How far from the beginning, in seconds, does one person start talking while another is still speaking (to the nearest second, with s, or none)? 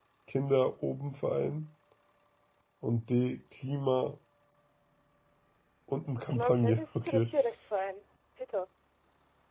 6 s